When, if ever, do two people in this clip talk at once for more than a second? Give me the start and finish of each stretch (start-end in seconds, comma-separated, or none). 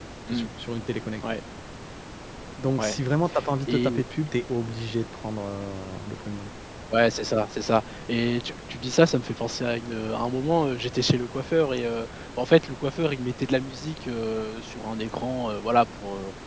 none